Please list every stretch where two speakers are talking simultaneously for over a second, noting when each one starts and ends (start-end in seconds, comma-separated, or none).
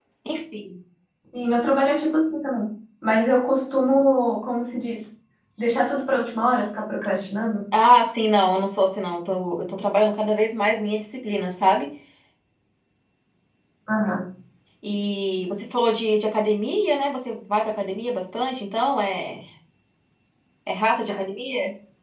none